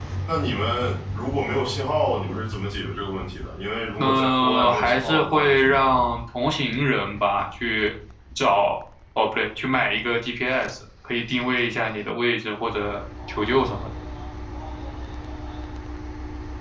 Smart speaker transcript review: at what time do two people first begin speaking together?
4.0 s

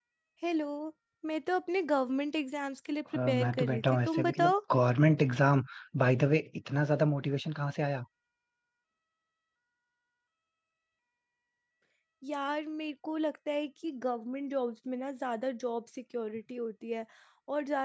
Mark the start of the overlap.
3.1 s

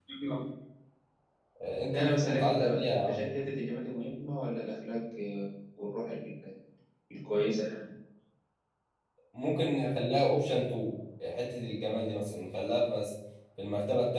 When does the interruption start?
1.9 s

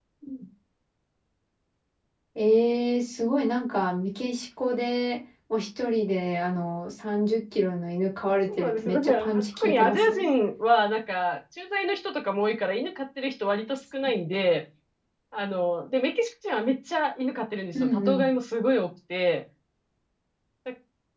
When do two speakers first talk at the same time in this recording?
8.6 s

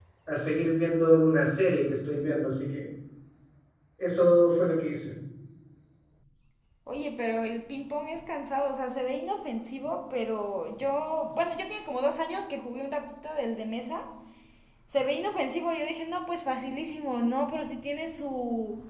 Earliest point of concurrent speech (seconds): none

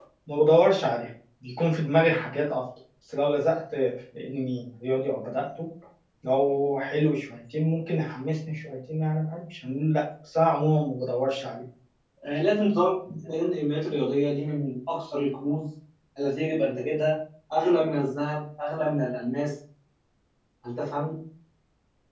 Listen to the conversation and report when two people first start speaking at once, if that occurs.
none

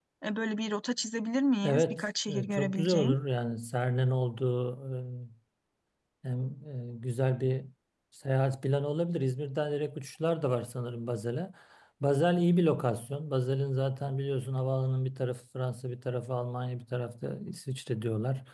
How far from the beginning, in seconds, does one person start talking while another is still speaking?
1.6 s

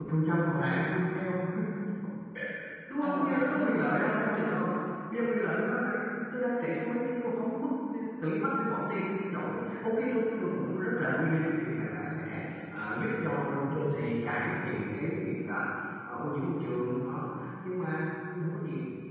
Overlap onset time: 3.0 s

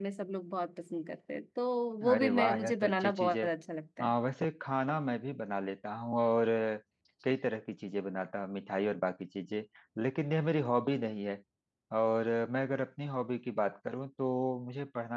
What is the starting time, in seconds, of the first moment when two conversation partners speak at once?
2.0 s

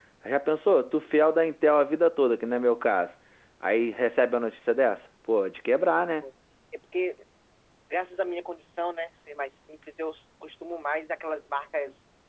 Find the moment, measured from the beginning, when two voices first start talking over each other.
none

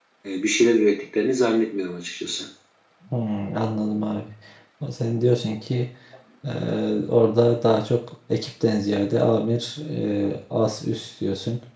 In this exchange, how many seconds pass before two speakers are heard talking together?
none

